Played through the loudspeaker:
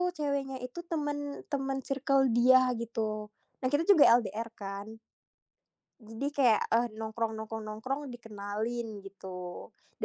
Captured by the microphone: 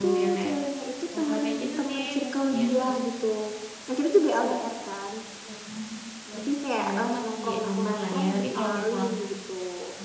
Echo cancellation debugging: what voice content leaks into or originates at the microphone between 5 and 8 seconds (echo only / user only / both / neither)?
both